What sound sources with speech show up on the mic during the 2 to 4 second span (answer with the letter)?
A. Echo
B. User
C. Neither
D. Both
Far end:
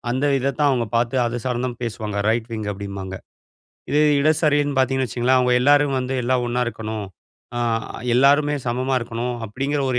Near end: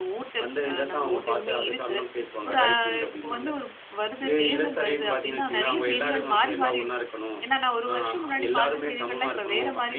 D